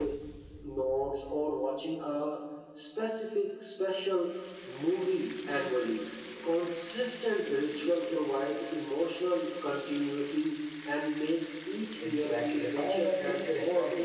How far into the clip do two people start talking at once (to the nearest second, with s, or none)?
12 s